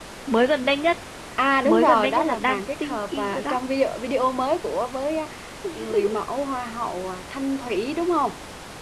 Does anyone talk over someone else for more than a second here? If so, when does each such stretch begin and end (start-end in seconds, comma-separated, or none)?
1.6-3.6